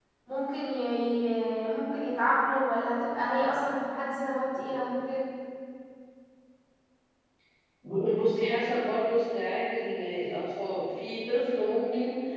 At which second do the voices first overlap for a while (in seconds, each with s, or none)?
none